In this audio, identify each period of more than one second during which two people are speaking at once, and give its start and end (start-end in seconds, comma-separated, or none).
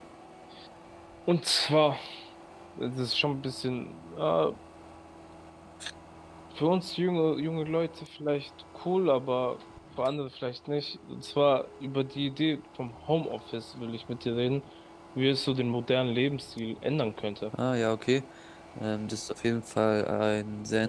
none